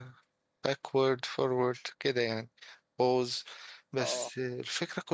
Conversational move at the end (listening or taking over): listening